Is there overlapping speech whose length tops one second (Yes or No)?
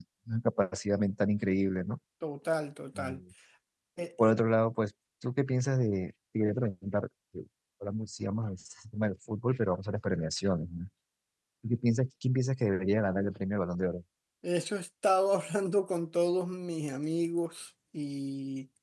No